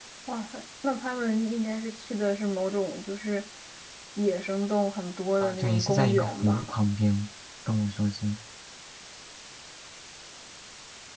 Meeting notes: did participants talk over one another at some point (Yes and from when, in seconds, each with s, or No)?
Yes, from 5.4 s